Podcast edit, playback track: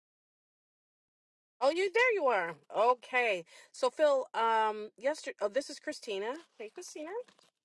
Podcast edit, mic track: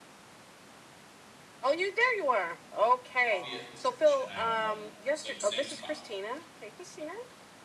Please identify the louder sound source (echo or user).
echo